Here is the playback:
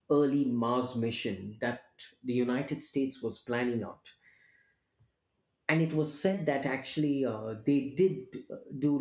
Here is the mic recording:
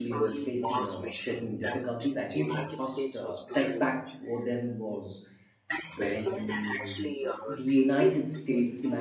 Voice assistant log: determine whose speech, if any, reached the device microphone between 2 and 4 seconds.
both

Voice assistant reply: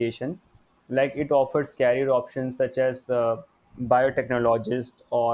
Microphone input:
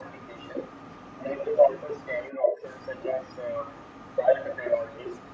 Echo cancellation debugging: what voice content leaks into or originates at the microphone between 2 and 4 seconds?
echo only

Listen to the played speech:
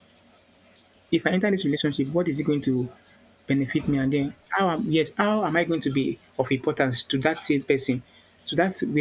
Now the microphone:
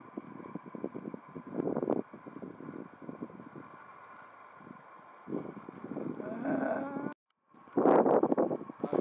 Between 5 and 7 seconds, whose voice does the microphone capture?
neither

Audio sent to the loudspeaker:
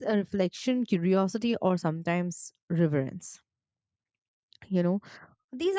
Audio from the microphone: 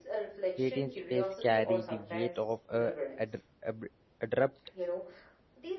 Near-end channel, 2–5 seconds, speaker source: both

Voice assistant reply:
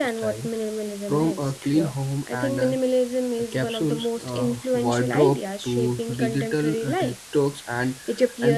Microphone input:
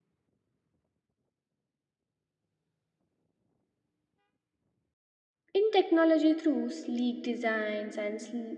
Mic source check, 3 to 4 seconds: neither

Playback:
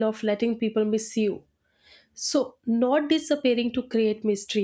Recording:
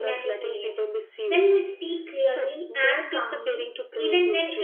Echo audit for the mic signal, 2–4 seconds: both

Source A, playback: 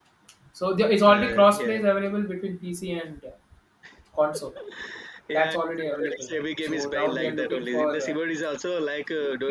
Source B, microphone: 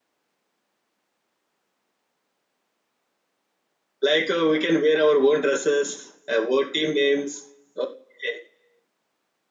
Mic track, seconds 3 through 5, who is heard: user only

